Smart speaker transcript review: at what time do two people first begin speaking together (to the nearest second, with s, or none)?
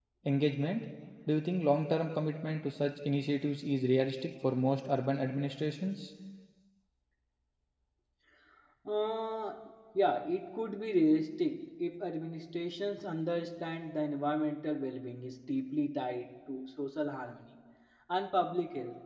none